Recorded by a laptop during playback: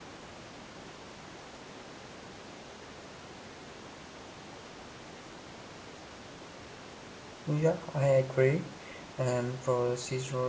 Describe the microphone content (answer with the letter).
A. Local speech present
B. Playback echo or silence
A